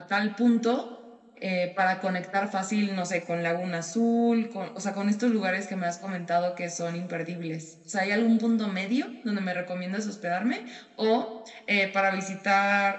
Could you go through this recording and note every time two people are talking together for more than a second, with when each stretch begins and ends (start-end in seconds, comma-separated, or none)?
none